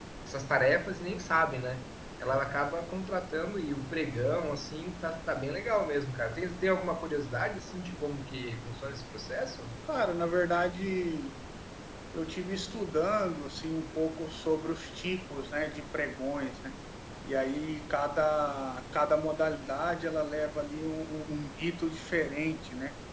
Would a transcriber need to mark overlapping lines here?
No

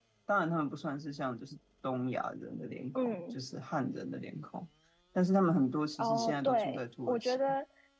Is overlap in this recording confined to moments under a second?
No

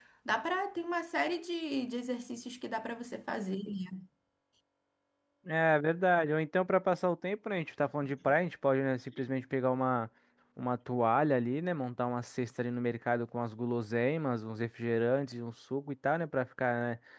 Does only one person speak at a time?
Yes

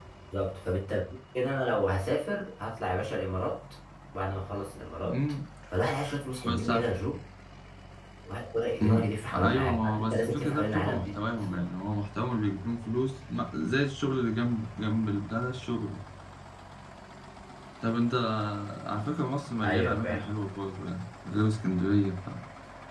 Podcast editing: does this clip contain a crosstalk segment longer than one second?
Yes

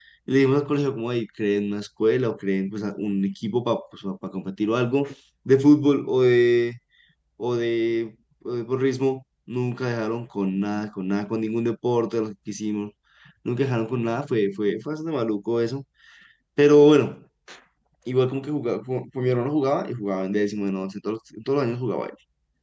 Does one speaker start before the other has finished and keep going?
No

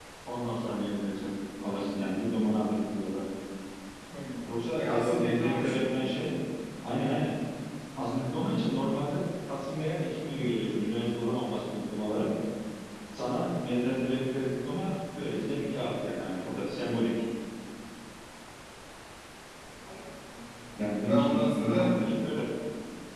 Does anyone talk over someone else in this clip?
Yes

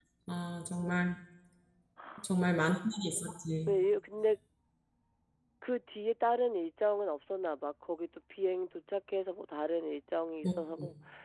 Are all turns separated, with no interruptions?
Yes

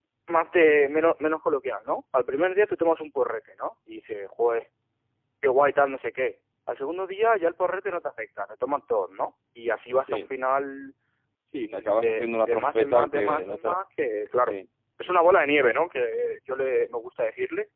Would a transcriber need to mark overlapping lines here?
Yes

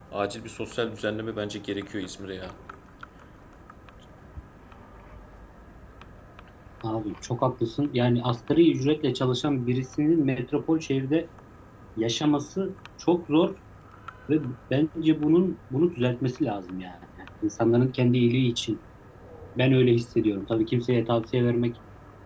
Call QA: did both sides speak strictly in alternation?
Yes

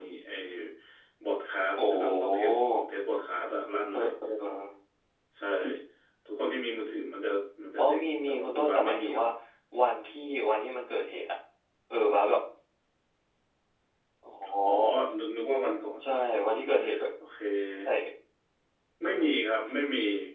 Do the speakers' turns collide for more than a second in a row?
Yes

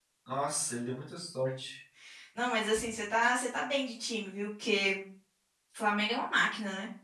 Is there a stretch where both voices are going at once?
No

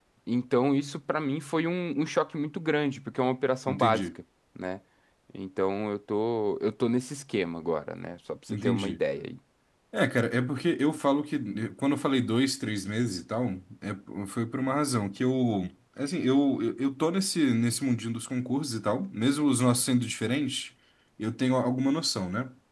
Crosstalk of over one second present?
No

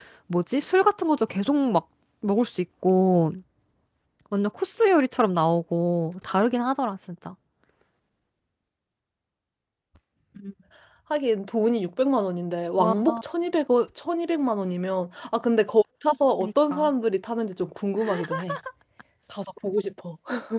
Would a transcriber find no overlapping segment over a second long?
Yes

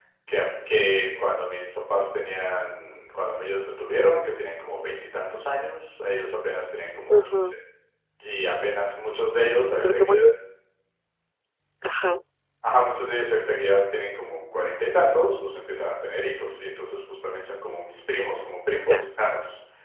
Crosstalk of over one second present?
No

